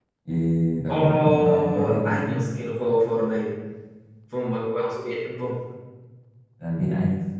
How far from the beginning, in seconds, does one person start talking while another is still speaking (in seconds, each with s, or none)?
0.9 s